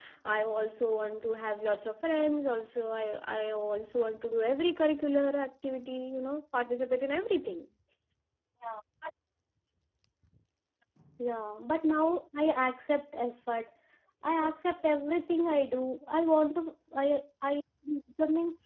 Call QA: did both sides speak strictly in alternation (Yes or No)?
Yes